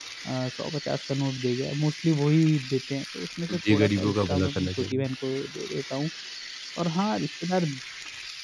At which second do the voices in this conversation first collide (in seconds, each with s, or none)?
3.5 s